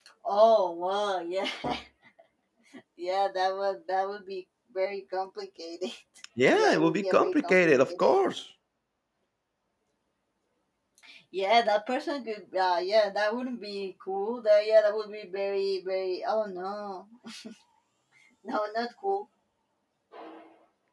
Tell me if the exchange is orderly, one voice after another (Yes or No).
No